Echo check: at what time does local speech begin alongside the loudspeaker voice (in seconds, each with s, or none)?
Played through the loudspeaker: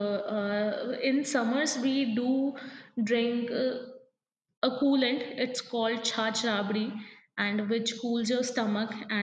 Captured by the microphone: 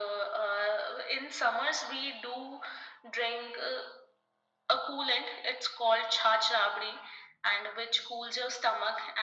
none